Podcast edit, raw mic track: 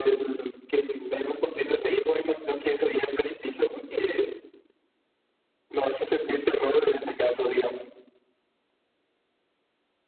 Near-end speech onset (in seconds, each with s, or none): none